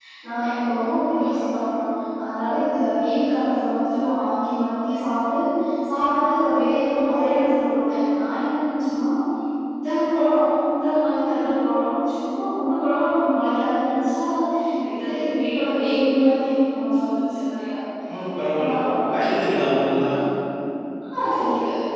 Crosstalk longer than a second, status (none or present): none